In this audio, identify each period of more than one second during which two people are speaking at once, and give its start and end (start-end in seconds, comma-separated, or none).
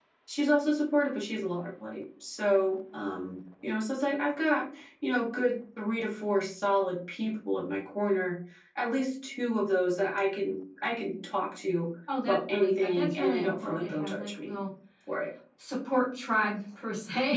12.2-14.6